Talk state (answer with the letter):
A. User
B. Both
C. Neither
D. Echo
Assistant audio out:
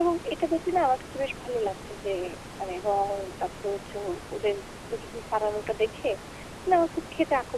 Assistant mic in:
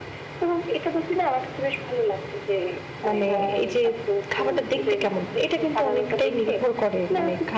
B